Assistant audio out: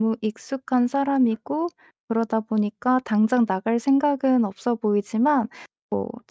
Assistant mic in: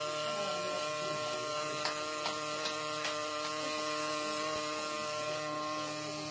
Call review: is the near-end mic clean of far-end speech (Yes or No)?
Yes